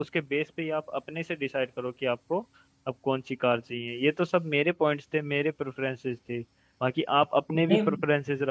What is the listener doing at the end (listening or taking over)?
listening